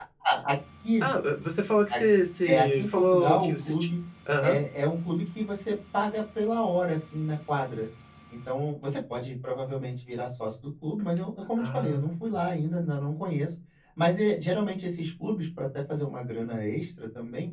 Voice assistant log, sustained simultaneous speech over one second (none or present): present